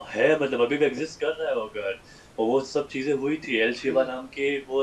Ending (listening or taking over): listening